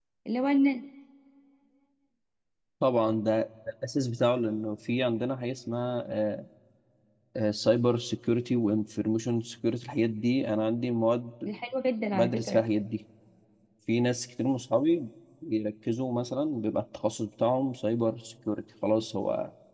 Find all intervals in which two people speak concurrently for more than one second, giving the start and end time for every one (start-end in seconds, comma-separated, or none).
none